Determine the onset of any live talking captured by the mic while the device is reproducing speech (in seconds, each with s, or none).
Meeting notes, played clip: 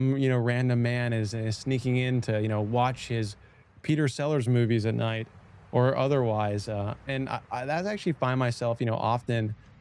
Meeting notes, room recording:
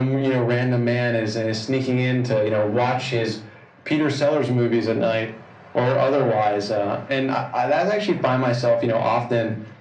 none